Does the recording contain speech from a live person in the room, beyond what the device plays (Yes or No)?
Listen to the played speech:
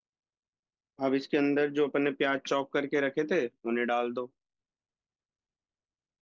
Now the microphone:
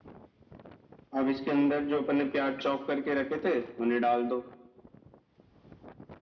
No